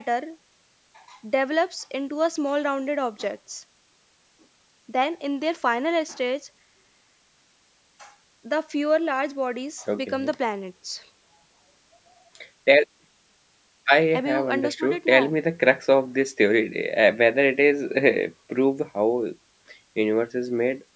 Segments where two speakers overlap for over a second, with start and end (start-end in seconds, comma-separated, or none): 14.1-15.3